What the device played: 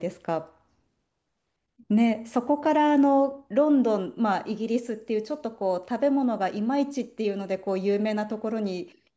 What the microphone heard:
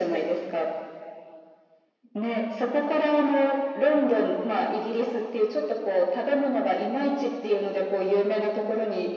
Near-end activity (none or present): none